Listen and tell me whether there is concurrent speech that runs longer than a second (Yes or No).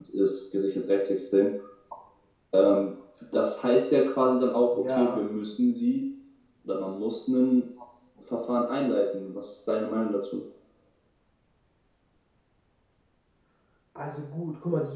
No